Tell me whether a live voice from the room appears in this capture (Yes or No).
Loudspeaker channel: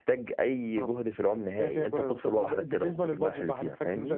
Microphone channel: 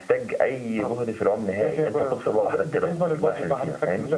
No